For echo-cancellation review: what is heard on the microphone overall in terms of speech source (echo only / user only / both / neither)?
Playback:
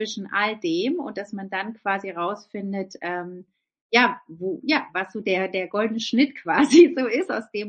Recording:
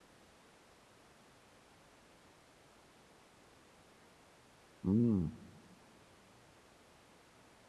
user only